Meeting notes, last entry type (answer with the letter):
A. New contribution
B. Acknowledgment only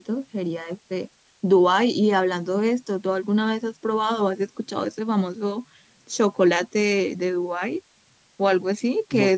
B